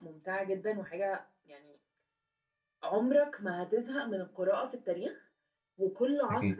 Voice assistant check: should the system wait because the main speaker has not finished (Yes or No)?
Yes